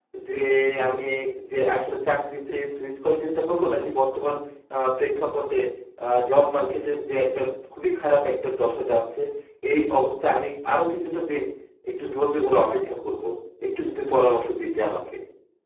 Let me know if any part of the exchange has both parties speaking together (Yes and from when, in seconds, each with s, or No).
No